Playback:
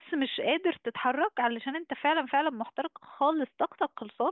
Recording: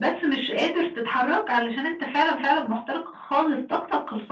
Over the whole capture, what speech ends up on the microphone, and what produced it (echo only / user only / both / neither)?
echo only